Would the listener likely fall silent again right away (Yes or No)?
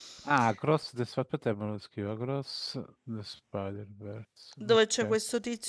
No